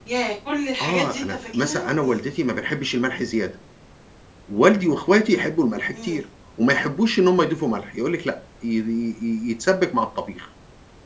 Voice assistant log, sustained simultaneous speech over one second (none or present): present